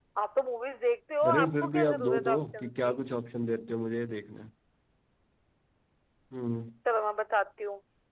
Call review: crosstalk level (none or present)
present